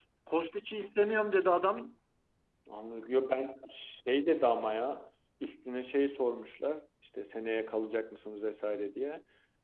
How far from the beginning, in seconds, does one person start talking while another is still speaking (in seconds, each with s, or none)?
none